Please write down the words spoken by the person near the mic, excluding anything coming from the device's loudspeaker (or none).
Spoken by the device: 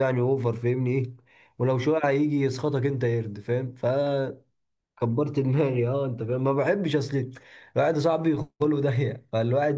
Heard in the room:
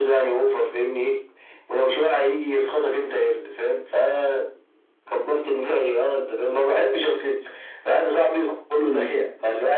مم.